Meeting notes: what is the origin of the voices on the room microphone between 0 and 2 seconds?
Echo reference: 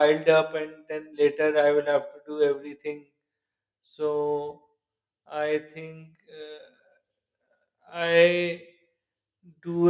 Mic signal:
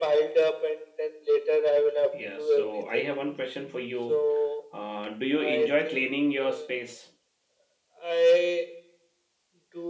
echo only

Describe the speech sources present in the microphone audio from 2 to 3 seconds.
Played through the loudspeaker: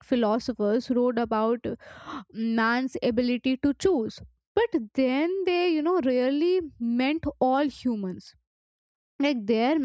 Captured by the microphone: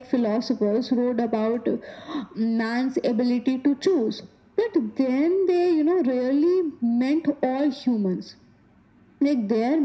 echo only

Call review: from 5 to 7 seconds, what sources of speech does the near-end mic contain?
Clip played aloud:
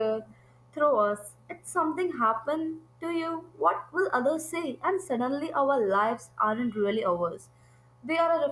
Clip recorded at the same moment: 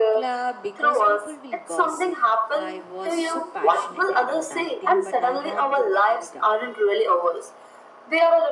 both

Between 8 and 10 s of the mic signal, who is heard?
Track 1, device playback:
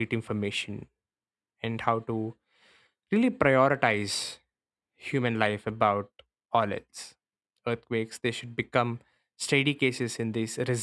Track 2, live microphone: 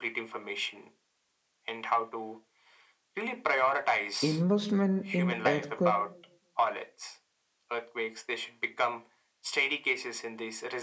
echo only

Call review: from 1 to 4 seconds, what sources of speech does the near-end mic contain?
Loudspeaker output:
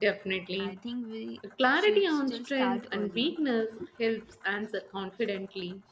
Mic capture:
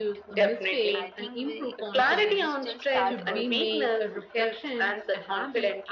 both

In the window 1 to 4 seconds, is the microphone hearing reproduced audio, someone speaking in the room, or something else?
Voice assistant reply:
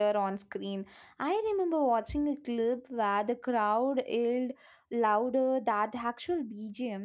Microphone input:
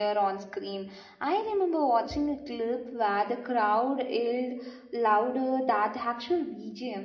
echo only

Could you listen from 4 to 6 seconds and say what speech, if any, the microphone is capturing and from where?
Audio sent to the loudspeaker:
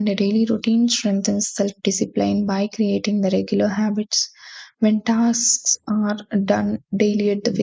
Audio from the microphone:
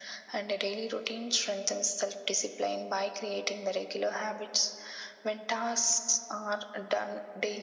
echo only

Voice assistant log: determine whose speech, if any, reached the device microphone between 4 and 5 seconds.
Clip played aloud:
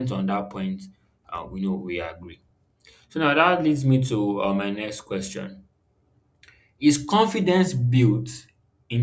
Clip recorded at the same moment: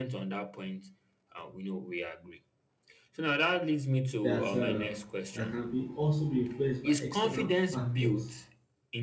both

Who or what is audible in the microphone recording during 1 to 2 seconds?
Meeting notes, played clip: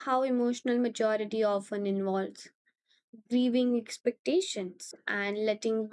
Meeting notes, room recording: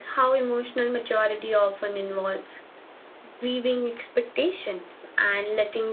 echo only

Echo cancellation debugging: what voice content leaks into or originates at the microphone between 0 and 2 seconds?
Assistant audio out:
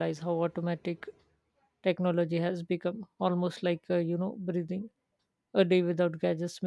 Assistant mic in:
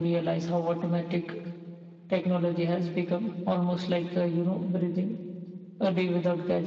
echo only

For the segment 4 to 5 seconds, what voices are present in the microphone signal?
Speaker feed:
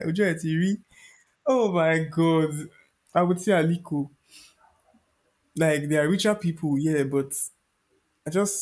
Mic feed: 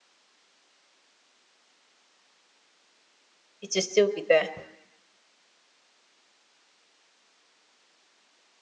user only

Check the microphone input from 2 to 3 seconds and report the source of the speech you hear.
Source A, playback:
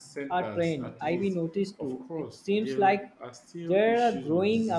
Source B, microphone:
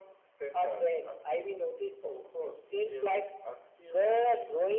echo only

